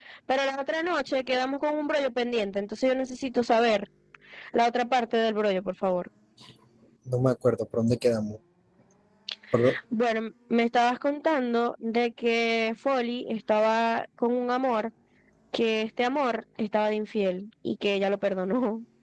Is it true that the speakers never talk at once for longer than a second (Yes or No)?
Yes